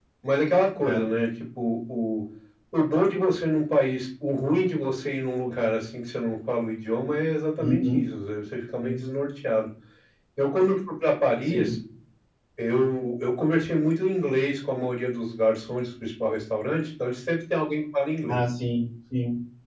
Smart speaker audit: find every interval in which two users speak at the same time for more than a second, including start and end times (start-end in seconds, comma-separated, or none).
none